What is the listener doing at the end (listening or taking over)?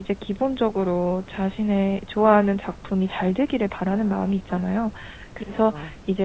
listening